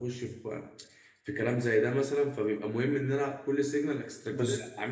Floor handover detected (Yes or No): No